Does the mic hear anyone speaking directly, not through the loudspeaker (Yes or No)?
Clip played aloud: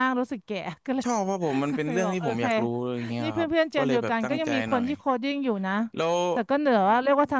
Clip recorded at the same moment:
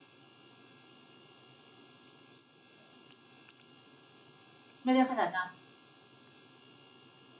Yes